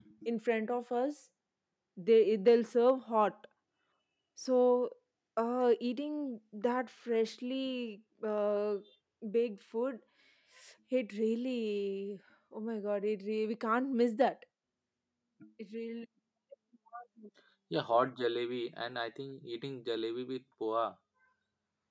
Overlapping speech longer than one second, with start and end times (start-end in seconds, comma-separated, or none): none